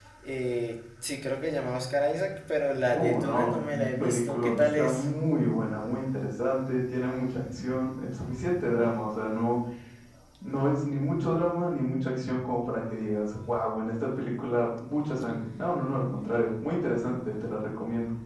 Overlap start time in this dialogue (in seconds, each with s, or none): 2.9 s